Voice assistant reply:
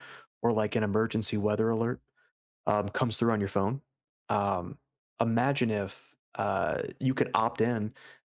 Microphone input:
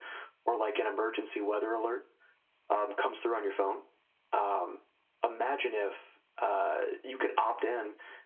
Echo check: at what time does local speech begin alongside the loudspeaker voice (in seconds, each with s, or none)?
none